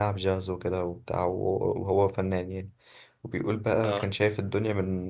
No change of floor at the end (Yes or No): Yes